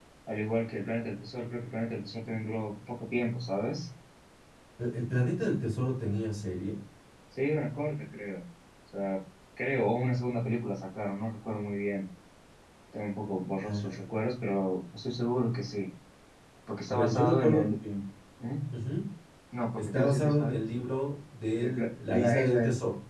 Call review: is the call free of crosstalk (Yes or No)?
No